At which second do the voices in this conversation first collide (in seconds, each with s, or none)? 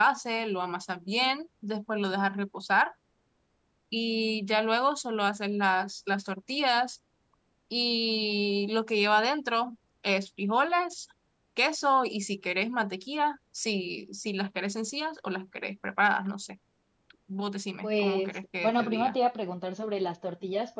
17.8 s